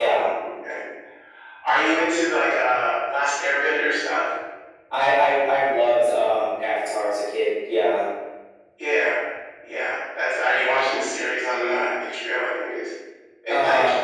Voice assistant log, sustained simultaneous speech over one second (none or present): none